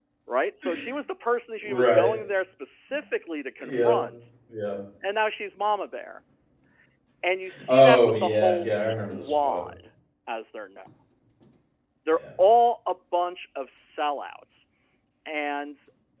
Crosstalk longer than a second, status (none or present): present